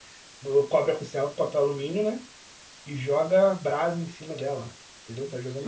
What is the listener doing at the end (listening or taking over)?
taking over